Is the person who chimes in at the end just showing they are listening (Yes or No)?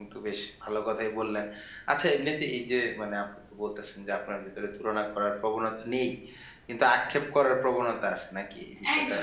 No